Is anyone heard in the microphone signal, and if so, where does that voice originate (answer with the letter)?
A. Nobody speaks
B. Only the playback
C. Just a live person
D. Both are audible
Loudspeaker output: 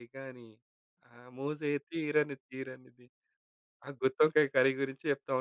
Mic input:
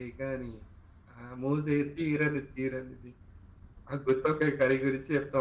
B